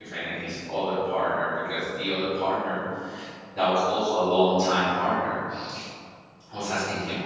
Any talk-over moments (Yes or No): No